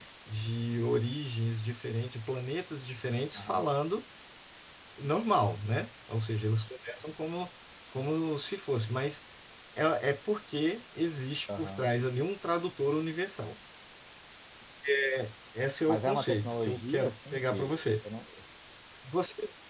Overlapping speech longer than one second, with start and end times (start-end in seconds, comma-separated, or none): 15.9-17.8